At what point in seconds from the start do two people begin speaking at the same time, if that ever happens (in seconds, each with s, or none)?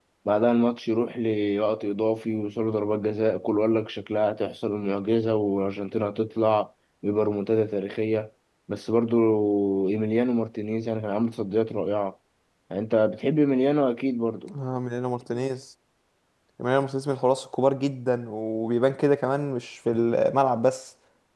none